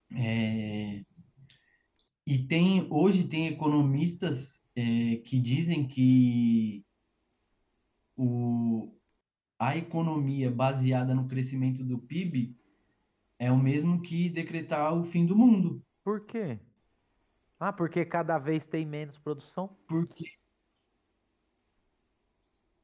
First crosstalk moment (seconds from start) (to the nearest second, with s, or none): none